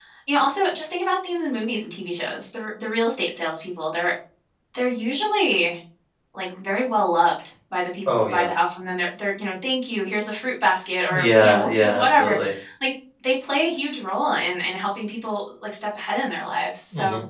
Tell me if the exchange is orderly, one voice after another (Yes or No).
No